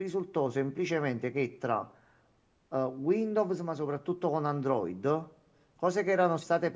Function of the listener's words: listening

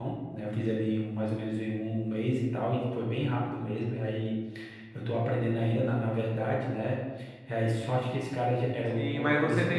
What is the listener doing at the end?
taking over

